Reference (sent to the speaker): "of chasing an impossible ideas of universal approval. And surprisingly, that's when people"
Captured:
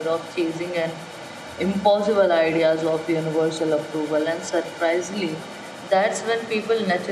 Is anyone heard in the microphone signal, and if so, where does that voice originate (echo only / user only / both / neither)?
echo only